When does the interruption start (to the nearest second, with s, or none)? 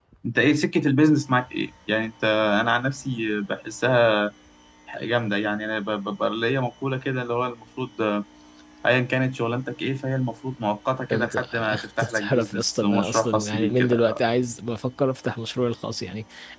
11 s